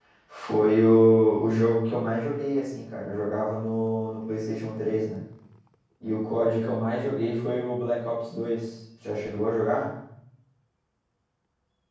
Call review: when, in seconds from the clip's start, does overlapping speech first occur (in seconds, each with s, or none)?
none